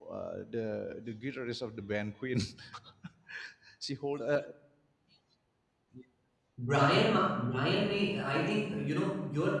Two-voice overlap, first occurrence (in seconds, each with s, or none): none